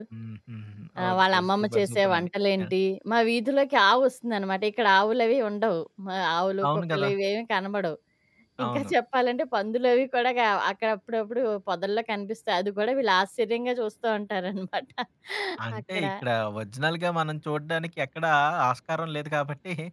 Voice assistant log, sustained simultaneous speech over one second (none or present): present